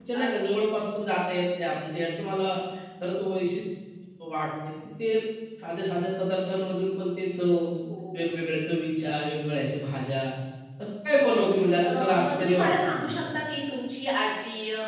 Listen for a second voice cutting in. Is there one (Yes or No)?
Yes